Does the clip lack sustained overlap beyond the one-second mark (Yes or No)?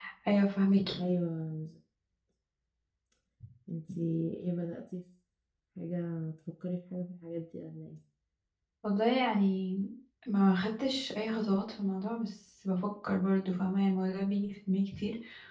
Yes